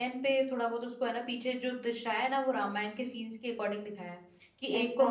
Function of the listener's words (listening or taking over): listening